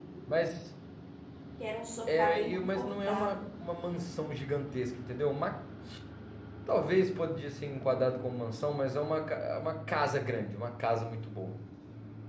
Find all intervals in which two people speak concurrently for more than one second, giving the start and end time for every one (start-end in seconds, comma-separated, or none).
2.1-3.4